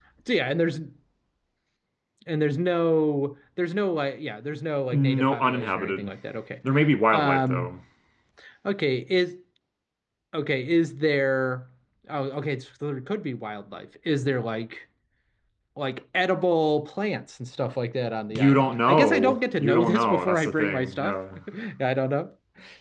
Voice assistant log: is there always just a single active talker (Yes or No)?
No